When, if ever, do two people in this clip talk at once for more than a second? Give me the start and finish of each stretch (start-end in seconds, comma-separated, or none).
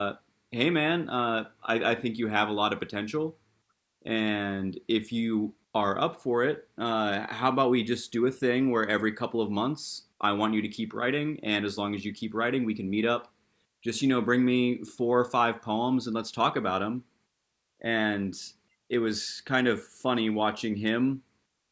none